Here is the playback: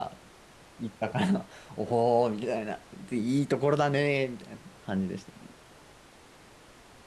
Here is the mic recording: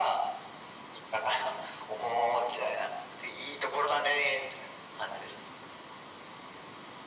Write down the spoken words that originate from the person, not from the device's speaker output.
none

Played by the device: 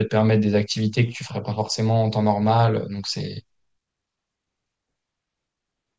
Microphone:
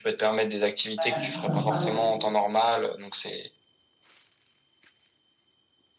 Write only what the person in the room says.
Ouais, c'est sympa, ouais.

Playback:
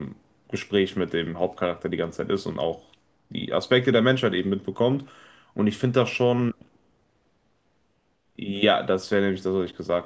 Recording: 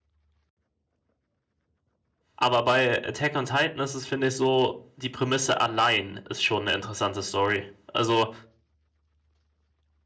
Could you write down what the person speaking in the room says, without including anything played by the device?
Aber bei Attack on Titan ist es, finde ich, so, die Prämisse allein ist schon eine interessante Story. Also,

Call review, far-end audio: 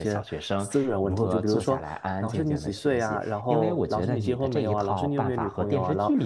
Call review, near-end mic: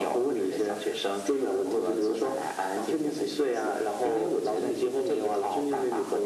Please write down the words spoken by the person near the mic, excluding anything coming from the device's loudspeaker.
none

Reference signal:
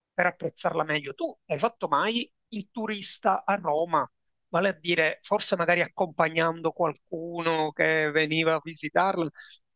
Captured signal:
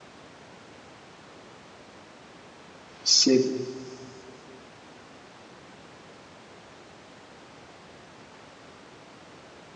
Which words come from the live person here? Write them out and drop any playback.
se

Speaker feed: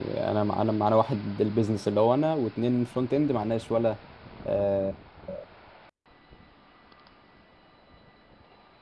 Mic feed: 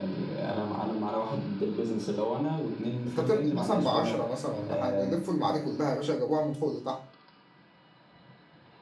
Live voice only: انت تبدا مثلا ب 10 مثلا ولا حاجه يلفوا المعادي كلها يا باشا جابوها من فوق لتحت

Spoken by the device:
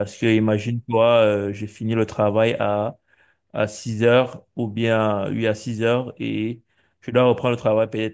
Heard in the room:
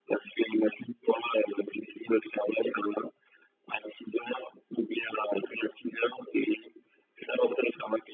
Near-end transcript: none

